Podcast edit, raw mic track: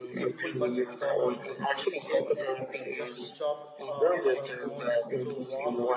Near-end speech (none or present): present